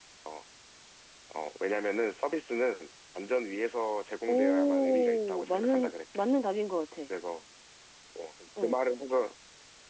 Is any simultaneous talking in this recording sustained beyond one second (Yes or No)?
Yes